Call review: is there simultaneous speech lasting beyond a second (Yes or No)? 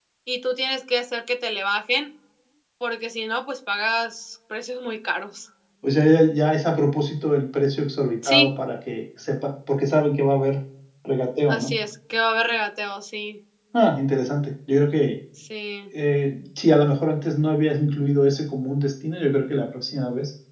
No